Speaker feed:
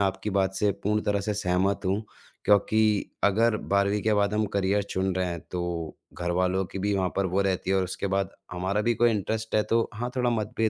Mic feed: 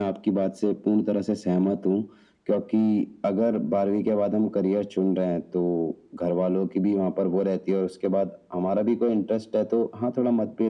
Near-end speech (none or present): none